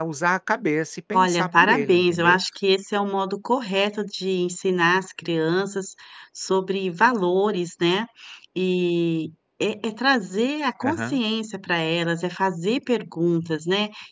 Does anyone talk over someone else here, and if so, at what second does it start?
1 s

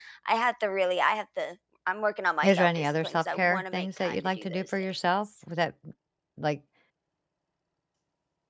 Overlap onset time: 2 s

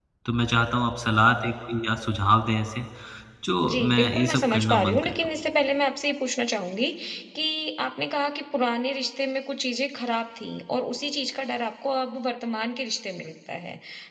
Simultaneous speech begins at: 4 s

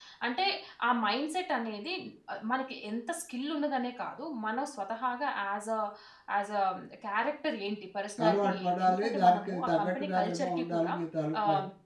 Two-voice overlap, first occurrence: 8 s

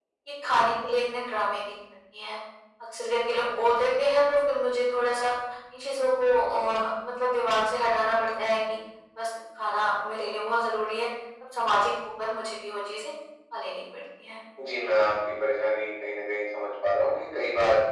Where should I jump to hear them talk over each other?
none

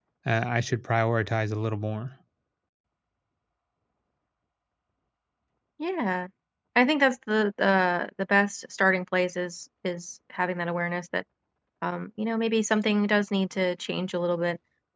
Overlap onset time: none

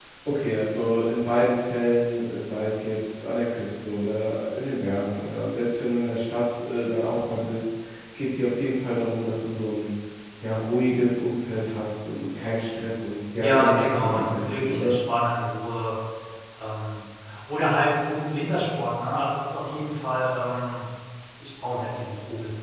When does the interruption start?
13 s

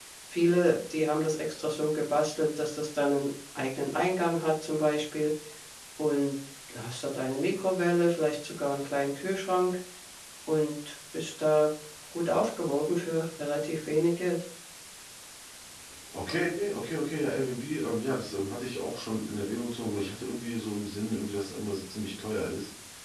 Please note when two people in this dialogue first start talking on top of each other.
none

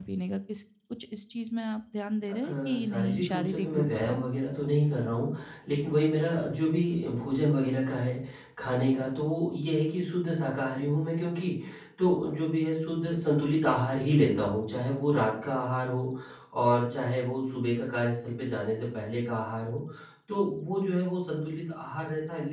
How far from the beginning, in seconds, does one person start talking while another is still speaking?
2 s

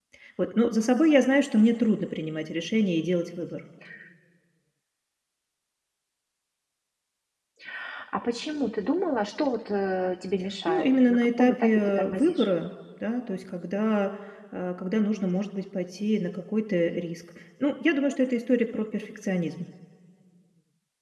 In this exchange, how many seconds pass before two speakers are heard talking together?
11 s

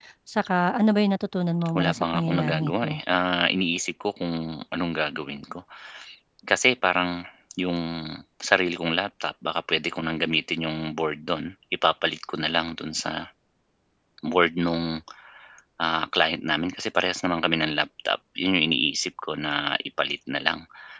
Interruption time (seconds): 2 s

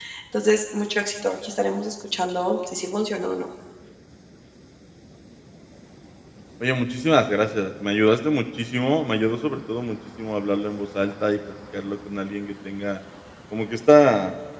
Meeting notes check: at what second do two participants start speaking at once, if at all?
none

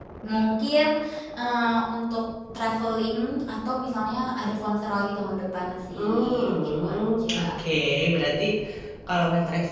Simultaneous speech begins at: 6 s

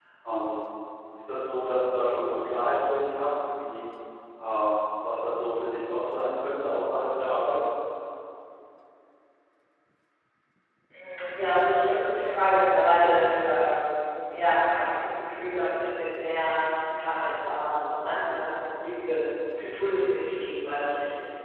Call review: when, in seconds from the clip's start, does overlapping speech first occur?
none

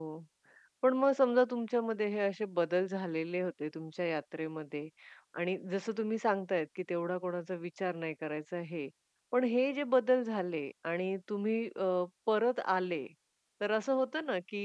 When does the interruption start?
none

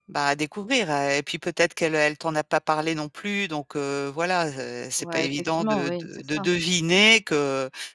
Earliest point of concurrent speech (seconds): 5 s

